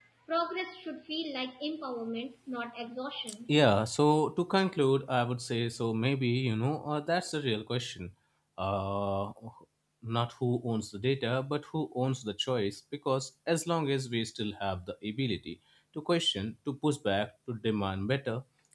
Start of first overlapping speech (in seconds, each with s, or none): none